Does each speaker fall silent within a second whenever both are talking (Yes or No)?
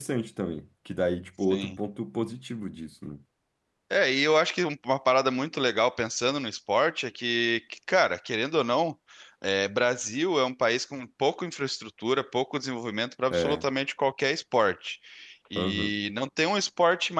Yes